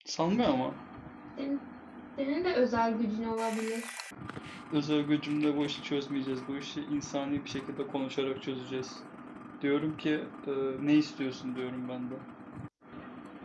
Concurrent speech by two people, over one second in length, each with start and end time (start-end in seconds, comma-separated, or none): none